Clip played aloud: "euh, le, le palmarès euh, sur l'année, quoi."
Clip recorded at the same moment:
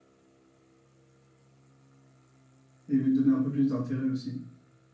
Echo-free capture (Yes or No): Yes